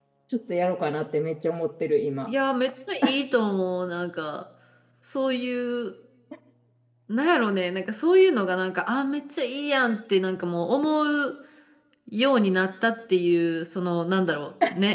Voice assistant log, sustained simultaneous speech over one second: none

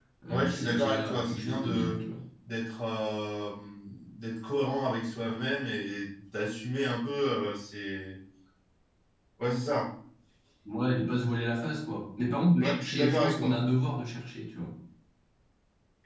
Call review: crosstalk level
present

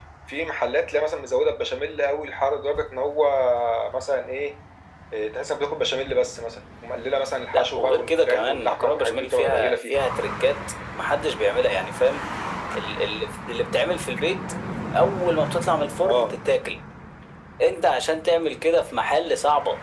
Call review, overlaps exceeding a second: present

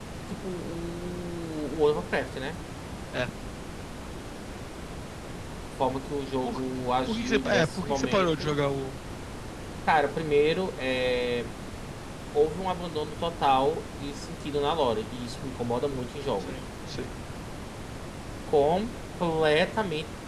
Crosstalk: present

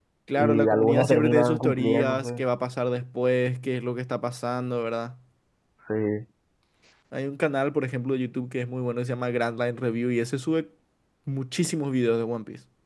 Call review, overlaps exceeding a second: present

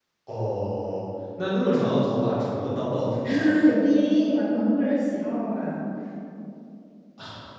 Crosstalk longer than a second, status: none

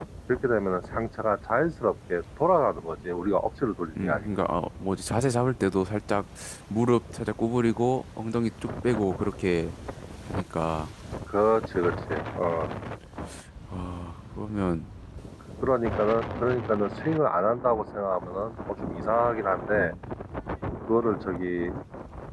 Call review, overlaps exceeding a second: none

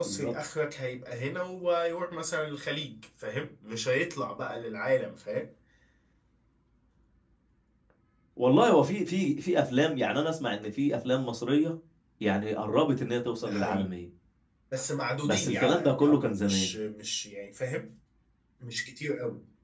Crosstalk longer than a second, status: present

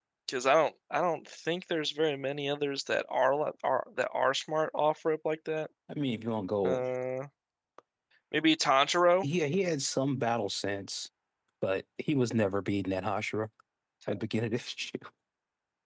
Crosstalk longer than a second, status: none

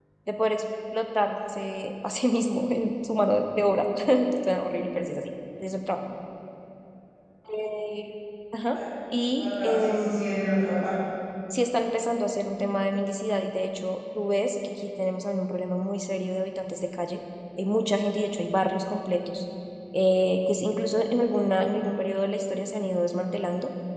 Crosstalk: present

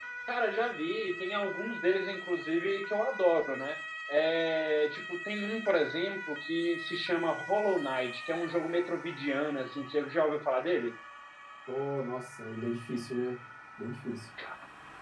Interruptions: none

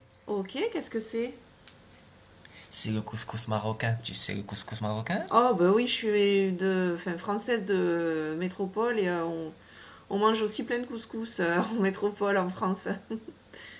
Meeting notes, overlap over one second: none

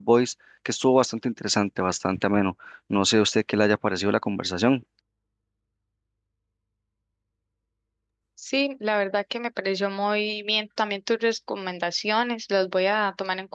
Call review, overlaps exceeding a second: none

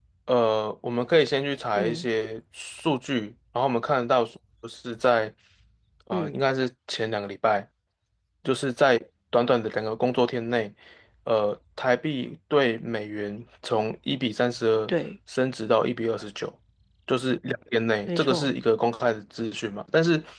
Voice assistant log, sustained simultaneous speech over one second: none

